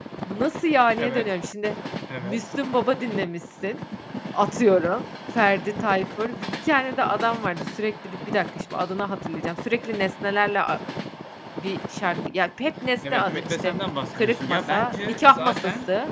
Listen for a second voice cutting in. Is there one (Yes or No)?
Yes